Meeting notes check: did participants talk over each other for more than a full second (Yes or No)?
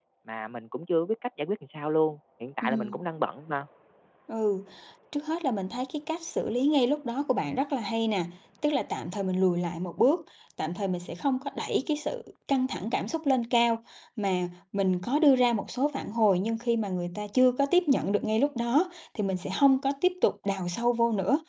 No